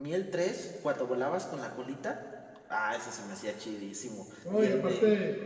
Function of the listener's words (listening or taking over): taking over